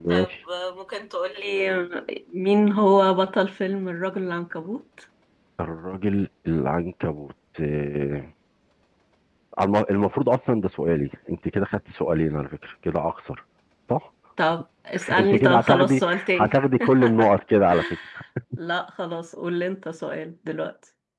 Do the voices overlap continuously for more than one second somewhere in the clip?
Yes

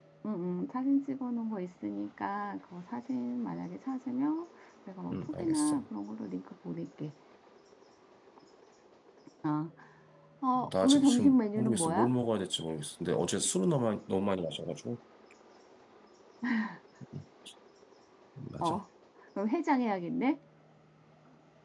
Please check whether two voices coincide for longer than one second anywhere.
Yes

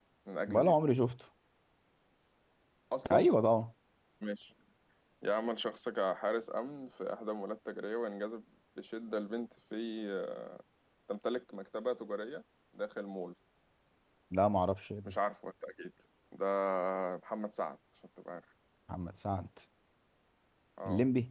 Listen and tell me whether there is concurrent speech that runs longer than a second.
No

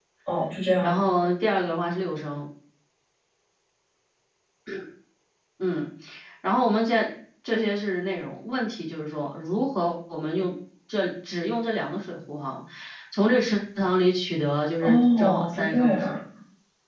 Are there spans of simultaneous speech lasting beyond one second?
Yes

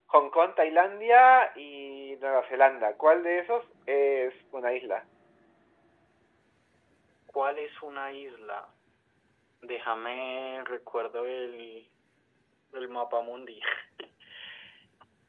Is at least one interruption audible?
No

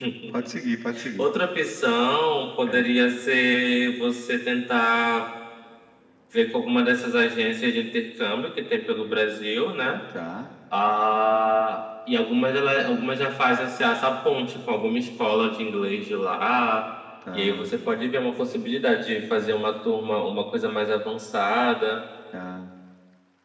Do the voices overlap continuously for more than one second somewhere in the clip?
No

